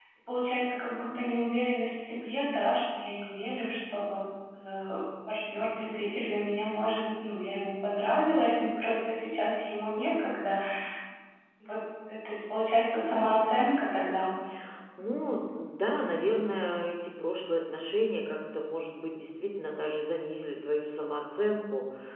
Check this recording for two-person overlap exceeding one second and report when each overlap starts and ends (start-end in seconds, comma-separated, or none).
none